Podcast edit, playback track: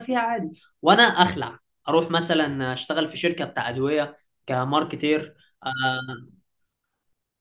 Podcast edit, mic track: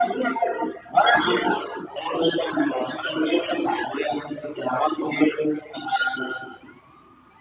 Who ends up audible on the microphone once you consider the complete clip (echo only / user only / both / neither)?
echo only